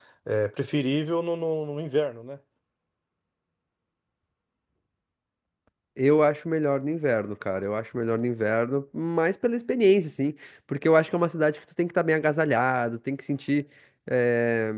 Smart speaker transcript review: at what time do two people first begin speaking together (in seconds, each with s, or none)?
none